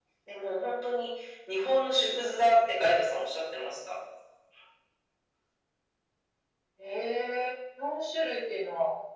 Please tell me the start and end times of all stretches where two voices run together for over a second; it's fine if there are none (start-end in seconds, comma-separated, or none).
none